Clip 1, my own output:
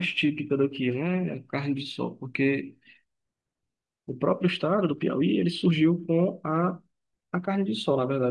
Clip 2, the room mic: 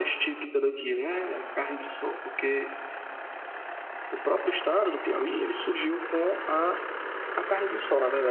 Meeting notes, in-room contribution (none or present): none